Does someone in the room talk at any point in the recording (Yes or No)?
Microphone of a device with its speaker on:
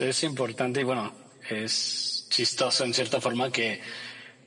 No